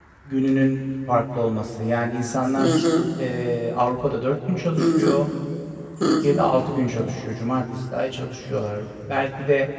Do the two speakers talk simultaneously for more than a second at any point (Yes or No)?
No